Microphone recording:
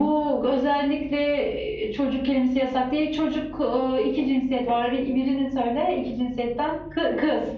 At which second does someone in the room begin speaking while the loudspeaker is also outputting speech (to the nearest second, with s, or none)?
none